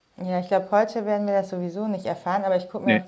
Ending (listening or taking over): listening